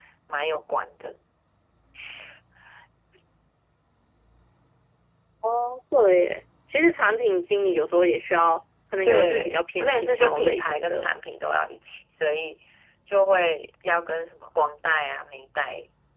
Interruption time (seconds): 9.1 s

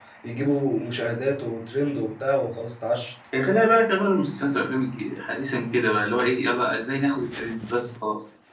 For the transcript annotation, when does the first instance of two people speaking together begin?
none

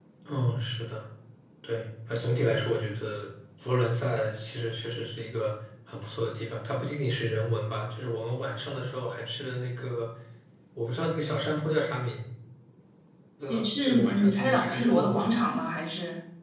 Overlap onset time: 13.5 s

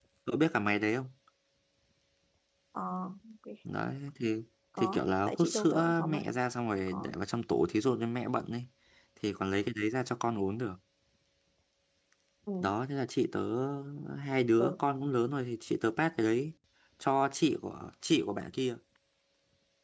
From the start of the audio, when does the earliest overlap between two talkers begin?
4.8 s

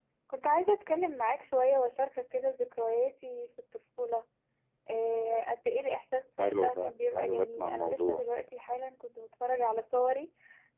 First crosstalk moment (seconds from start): 6.4 s

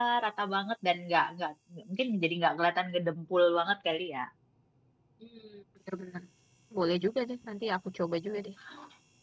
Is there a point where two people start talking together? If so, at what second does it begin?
none

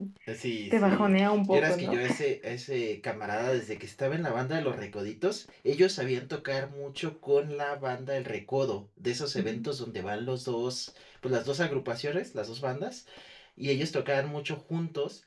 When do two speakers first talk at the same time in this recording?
0.7 s

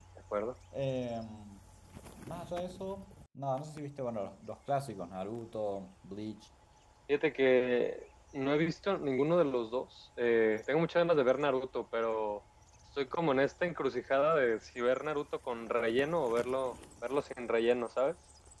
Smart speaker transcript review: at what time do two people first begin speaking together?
none

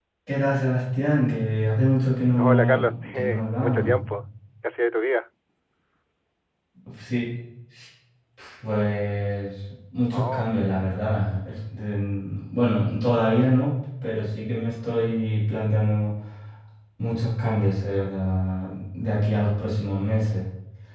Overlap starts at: 2.4 s

